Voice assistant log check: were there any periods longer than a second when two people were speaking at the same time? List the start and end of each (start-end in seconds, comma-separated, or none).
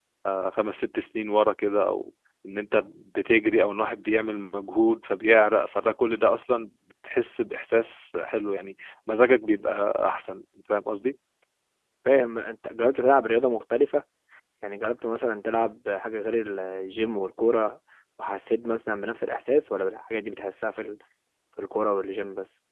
none